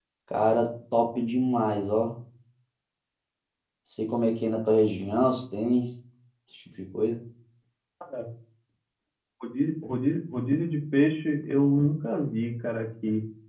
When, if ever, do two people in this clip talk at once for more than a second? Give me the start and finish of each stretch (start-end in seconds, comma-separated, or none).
none